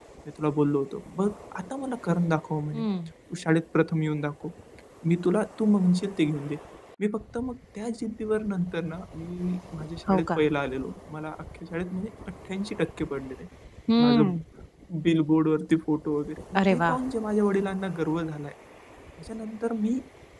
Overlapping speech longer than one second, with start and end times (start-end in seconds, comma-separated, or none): none